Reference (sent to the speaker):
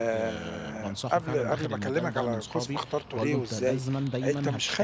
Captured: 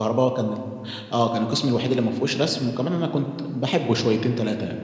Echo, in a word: none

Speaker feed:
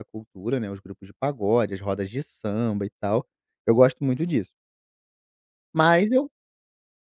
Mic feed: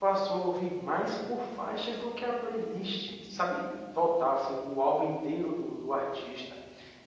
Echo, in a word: none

